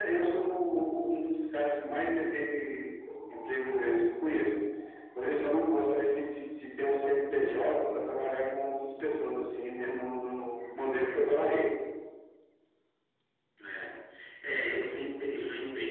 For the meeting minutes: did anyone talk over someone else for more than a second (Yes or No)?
No